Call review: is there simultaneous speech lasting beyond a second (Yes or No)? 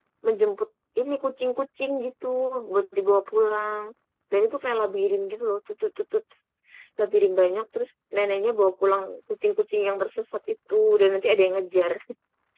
No